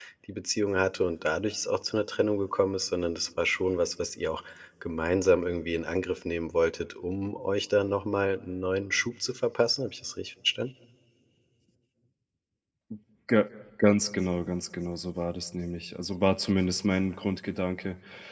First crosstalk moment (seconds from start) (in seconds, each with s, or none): none